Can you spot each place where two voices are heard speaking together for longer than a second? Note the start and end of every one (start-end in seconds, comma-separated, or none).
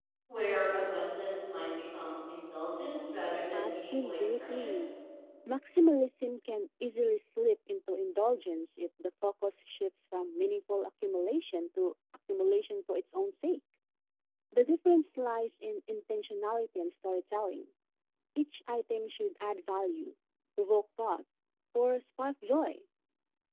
3.5-4.8